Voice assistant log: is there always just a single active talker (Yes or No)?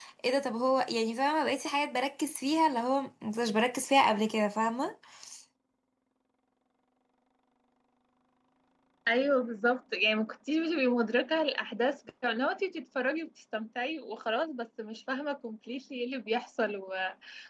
Yes